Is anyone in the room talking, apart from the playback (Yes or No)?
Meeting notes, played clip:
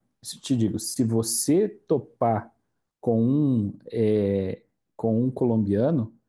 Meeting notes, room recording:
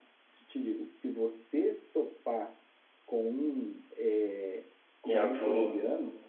Yes